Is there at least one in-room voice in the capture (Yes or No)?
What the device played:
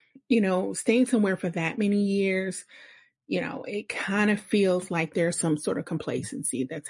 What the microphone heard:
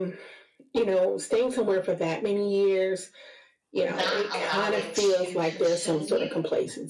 Yes